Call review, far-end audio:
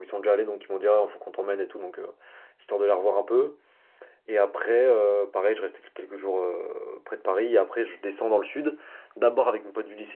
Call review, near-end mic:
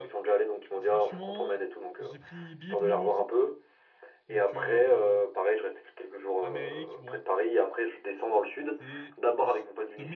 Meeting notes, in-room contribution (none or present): present